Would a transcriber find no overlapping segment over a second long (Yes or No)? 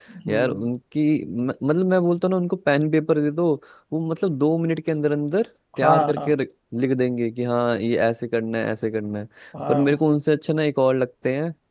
Yes